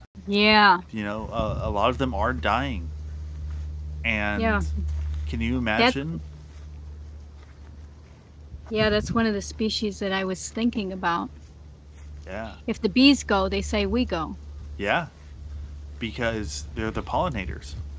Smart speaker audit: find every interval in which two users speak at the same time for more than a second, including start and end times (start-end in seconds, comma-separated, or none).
none